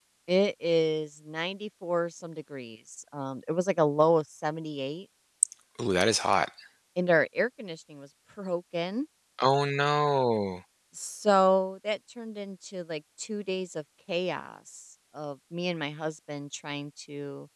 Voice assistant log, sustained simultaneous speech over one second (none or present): none